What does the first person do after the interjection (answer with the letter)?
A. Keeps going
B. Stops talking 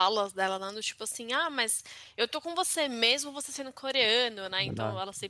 A